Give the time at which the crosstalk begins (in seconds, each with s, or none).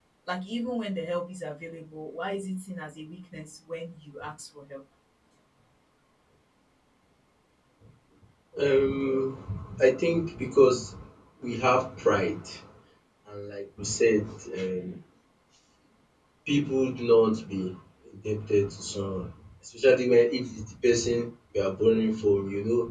none